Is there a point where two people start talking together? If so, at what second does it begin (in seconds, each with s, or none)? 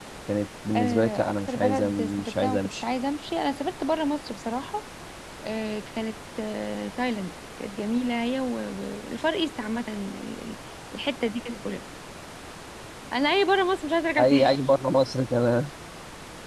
0.8 s